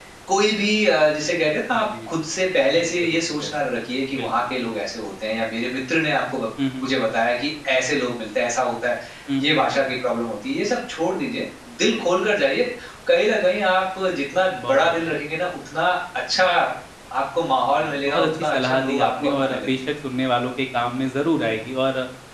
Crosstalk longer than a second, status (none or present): present